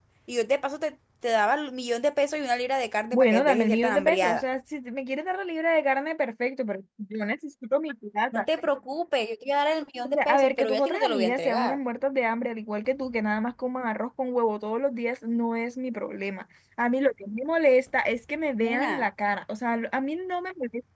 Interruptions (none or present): present